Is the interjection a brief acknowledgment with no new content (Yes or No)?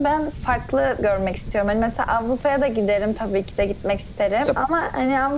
Yes